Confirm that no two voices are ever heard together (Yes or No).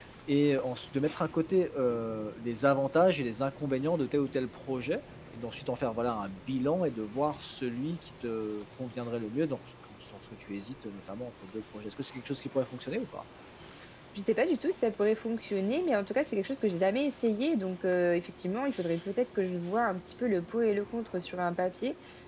Yes